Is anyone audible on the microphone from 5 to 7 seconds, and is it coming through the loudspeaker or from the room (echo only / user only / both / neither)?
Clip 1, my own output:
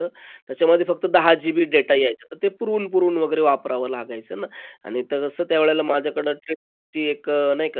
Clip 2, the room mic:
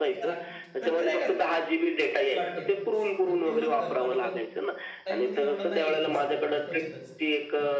both